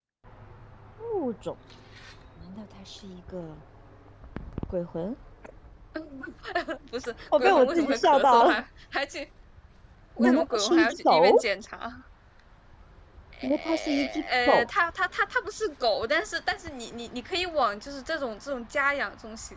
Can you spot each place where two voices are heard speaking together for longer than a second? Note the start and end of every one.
7.4-8.6, 10.2-11.4, 13.4-14.7

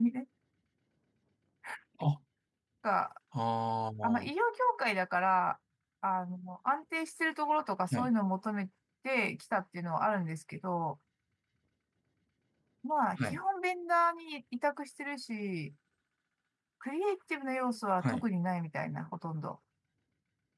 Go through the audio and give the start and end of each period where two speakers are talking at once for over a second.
none

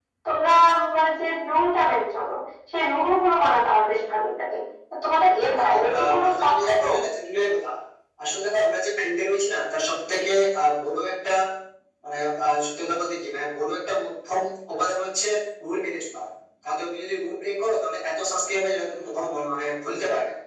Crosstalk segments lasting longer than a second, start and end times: 5.6-6.8

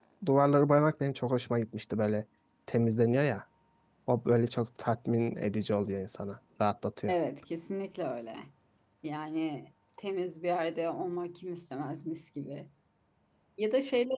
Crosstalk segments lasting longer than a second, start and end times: none

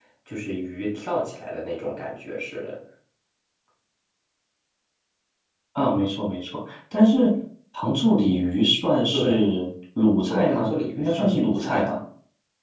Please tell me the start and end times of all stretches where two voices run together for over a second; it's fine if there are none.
10.3-11.9

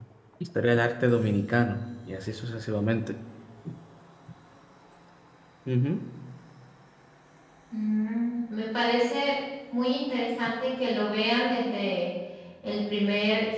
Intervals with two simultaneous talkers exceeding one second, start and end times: none

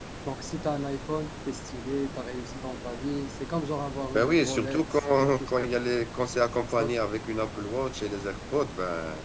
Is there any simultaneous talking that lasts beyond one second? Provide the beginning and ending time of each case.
4.1-5.7

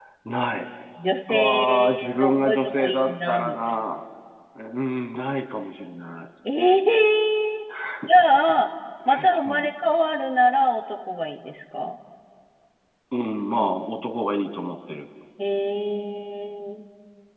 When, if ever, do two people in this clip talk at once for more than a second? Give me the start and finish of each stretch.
1.3-3.8

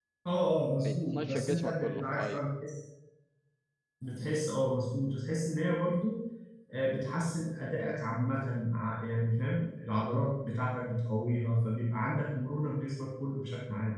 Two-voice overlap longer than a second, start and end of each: 0.8-2.4

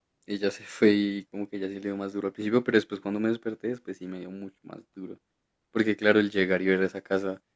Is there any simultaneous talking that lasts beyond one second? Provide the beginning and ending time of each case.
none

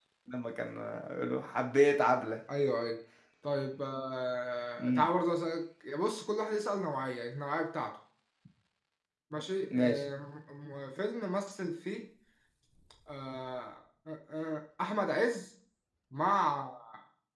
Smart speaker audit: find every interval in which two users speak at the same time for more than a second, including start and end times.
none

